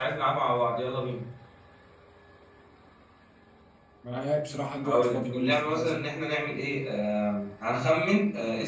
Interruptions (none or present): present